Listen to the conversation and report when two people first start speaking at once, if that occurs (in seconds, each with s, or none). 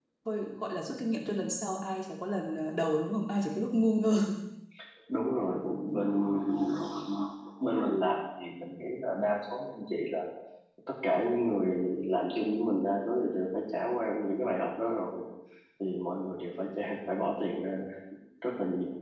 none